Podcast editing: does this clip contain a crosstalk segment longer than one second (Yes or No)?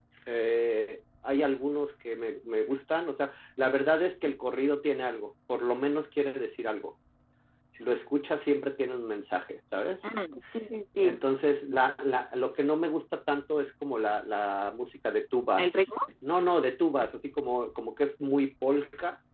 No